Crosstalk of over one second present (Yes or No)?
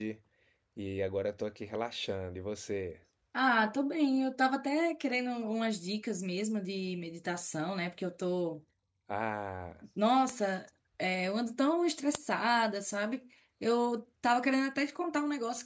No